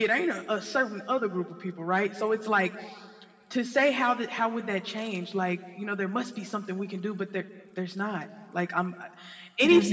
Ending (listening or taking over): listening